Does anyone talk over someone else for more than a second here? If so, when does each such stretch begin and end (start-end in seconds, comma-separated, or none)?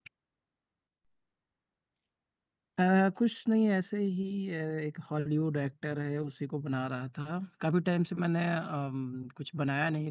none